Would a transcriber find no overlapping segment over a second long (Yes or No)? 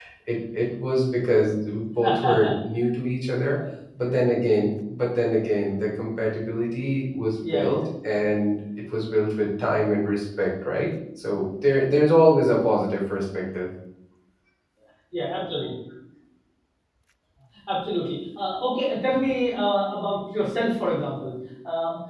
Yes